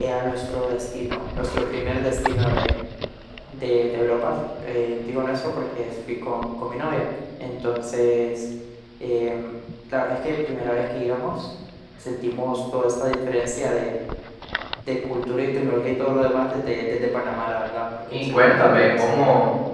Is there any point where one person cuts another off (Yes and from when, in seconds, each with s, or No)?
Yes, from 18.1 s